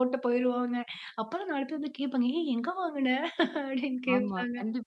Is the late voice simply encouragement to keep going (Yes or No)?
No